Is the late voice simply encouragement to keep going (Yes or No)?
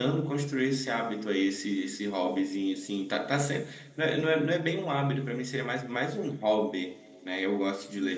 Yes